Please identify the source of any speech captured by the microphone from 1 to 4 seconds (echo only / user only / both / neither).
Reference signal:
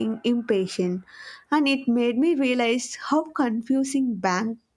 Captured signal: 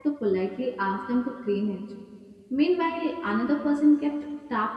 user only